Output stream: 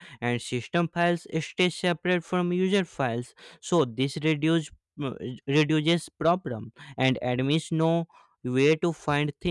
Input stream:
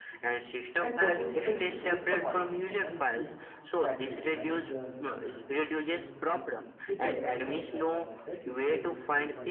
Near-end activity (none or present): present